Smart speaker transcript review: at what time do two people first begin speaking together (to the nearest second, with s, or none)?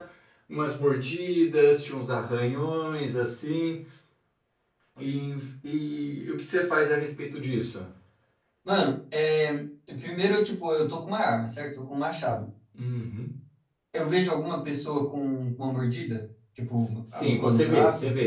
17 s